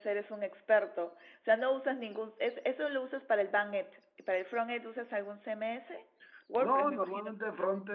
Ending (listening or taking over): taking over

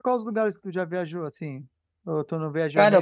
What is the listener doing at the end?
taking over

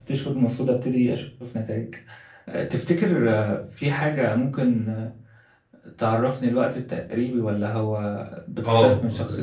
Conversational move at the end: taking over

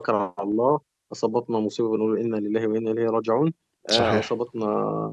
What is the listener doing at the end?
listening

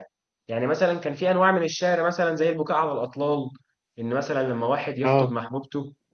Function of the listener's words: listening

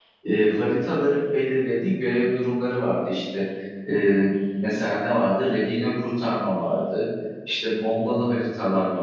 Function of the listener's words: listening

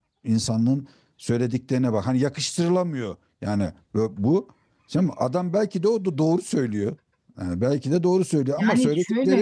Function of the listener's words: listening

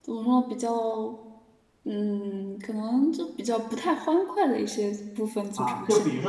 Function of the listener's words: taking over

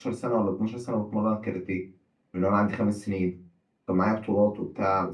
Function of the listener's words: listening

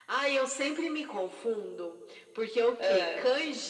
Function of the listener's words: listening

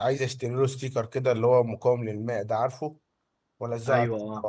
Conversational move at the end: listening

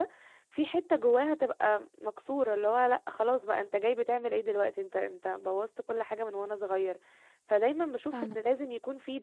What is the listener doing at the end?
listening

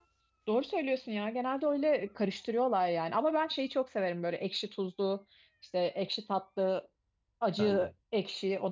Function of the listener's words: listening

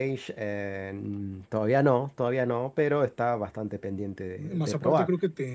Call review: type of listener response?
taking over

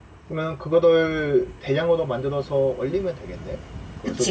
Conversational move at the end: taking over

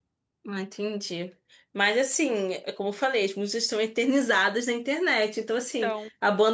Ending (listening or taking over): listening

